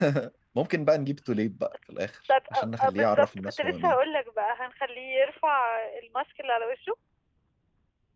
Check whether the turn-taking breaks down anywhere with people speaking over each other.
Yes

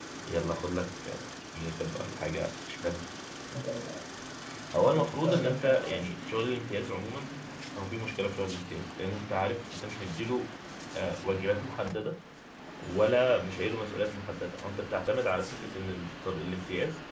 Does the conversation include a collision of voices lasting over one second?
Yes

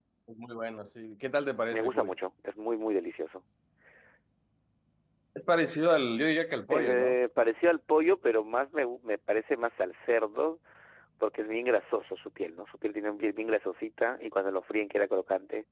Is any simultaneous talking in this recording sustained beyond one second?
No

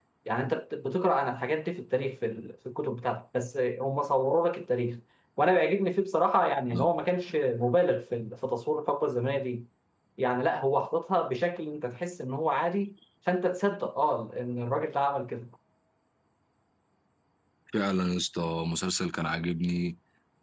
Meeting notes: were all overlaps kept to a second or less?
Yes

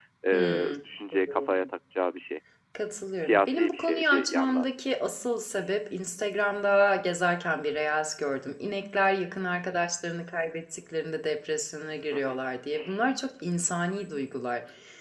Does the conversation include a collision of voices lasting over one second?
Yes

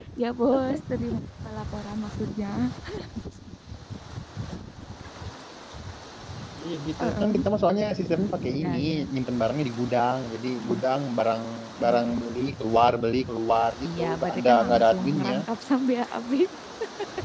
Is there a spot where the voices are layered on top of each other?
Yes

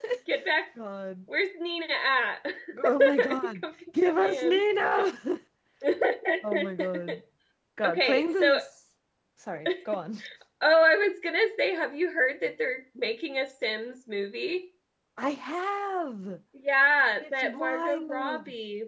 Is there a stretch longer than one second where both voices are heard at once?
Yes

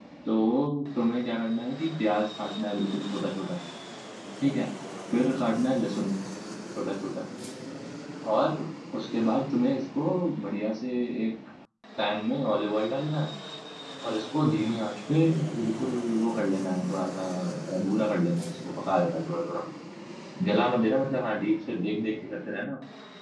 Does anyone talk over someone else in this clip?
No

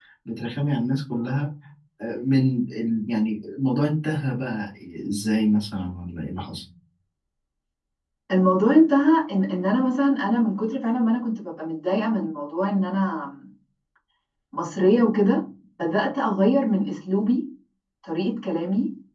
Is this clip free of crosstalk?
Yes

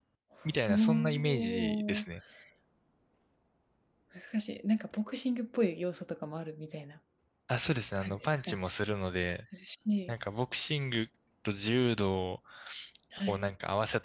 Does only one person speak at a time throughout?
No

